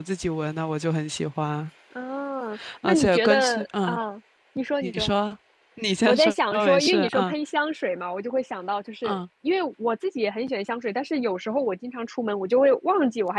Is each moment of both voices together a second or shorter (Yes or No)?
No